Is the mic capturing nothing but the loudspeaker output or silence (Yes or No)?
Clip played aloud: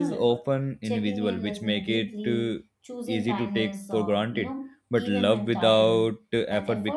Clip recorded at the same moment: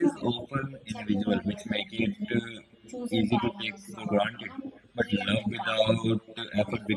Yes